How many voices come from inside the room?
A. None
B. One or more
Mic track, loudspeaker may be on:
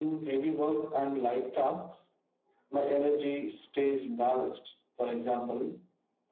A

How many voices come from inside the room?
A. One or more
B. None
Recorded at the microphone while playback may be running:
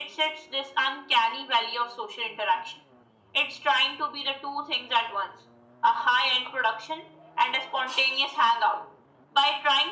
B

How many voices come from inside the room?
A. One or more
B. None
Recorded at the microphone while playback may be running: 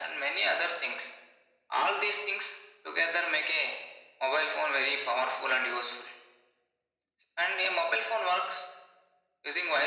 B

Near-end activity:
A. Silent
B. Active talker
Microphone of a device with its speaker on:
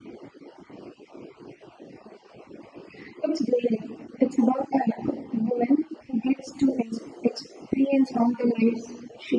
A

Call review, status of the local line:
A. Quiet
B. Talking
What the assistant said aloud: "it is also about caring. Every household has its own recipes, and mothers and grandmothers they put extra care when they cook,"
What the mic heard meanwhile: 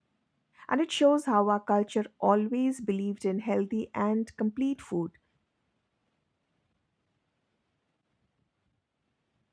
B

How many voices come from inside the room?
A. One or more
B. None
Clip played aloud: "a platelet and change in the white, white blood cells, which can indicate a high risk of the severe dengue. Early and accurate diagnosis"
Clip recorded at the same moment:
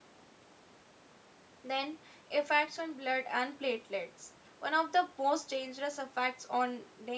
A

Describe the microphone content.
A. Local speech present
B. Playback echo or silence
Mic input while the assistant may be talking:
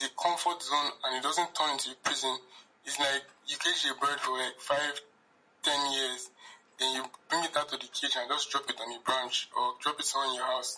B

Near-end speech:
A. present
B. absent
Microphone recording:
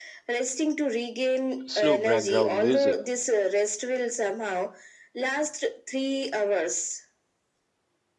A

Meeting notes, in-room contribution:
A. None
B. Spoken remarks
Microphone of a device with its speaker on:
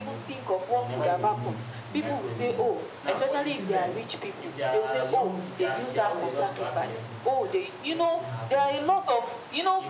B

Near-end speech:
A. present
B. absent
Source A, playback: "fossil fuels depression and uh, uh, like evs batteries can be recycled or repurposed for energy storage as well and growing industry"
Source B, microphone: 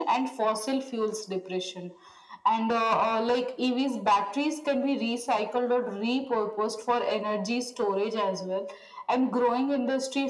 B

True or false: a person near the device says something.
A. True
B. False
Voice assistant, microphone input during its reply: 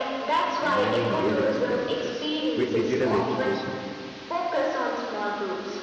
A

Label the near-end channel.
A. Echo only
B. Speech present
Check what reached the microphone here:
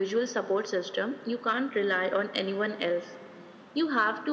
A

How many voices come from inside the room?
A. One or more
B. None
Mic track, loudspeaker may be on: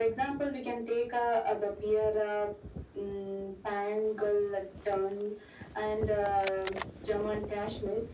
B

